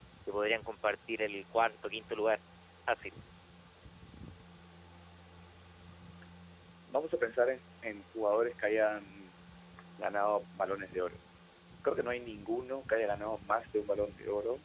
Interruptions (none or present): none